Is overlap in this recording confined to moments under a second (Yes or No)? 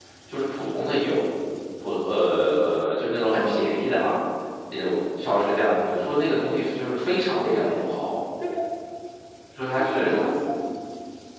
Yes